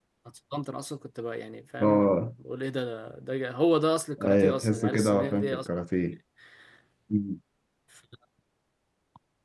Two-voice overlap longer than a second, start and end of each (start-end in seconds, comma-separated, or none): 4.2-5.7